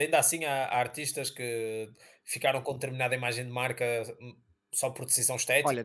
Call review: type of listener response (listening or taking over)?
taking over